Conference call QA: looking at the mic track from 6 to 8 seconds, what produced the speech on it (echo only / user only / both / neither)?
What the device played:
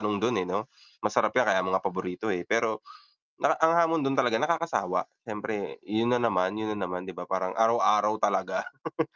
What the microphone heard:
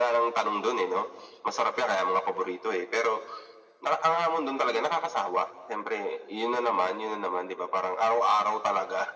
echo only